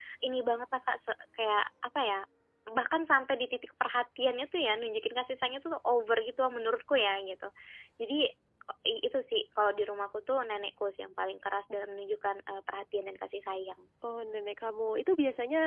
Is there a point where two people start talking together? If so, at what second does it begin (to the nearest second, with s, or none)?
none